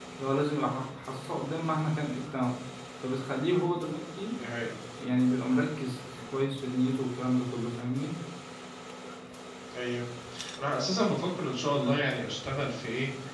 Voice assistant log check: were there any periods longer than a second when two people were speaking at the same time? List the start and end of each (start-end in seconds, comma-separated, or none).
none